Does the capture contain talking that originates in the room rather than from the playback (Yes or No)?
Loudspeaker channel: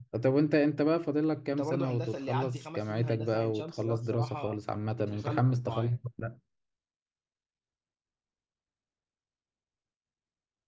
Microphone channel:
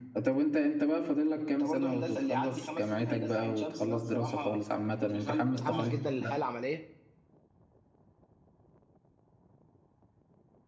Yes